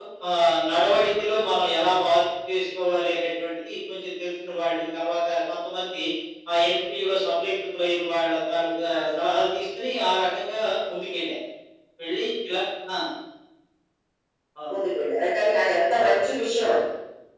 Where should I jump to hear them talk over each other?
none

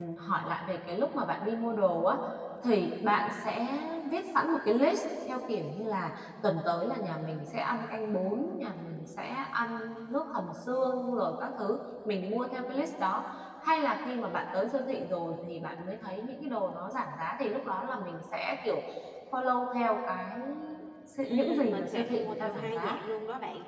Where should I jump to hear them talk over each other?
21.2 s

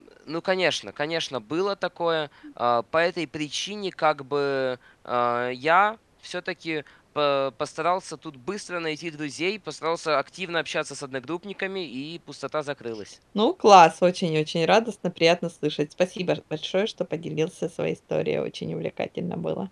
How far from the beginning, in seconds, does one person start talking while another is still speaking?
none

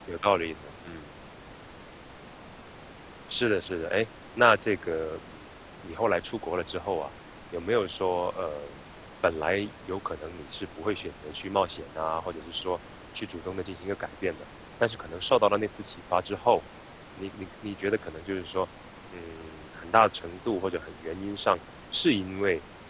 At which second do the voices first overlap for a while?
none

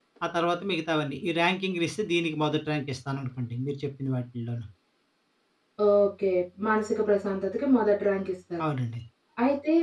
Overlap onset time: none

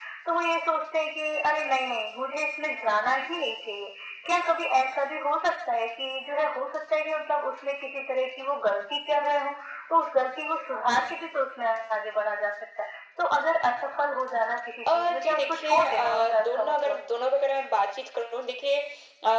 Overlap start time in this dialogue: 14.9 s

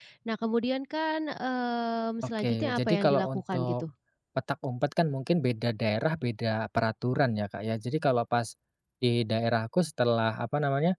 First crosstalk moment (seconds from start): 2.4 s

